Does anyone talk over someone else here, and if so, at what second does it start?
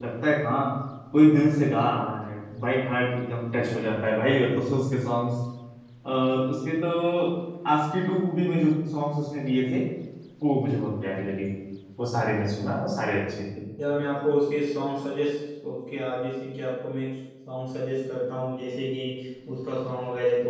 none

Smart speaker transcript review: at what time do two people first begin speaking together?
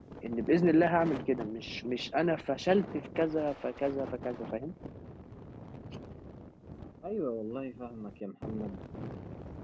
none

